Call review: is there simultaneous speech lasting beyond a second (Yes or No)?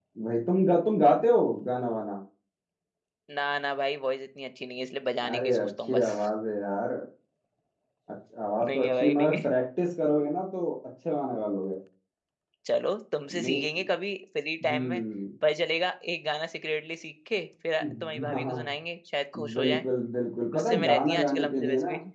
Yes